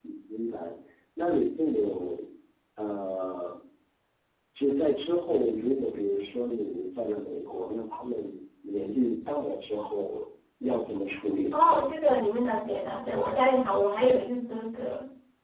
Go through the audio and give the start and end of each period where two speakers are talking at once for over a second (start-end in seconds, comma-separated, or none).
none